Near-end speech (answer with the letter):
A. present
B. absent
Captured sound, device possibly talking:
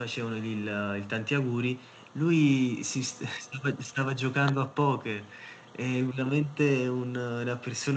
A